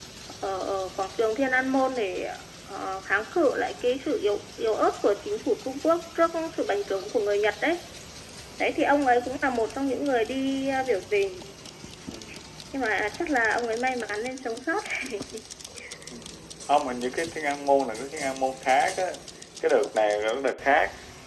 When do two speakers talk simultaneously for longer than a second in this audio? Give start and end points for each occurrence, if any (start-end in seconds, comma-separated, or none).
none